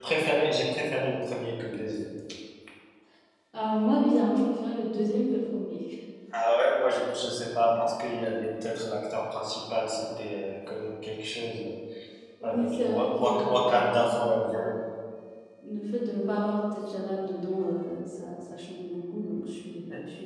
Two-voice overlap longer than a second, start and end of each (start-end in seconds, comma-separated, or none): 12.4-14.7